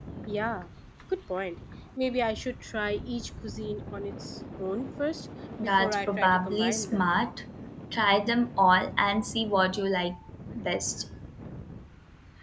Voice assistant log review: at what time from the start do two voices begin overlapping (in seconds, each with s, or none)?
5.6 s